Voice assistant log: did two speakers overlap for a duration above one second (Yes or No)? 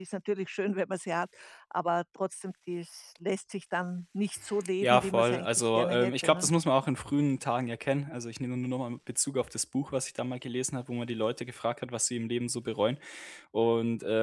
Yes